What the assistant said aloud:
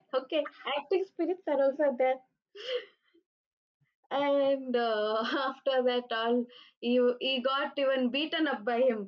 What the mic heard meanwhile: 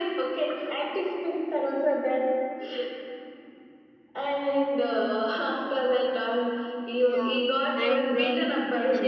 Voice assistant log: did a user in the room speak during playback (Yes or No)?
Yes